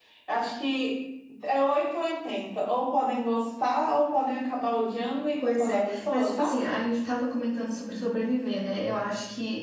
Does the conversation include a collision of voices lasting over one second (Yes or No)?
Yes